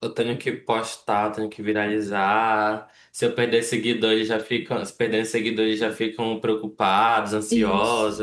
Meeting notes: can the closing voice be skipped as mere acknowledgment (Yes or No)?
No